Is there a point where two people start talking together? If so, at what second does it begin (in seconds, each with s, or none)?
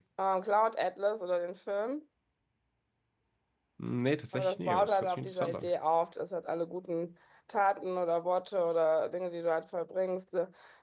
4.3 s